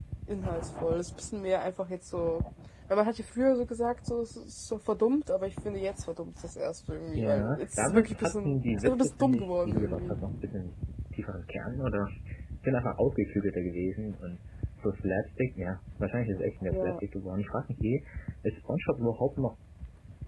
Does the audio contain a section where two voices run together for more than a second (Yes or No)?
Yes